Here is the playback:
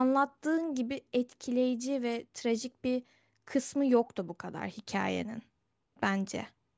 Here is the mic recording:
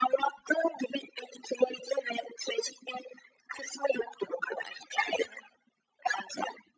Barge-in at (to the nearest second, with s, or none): none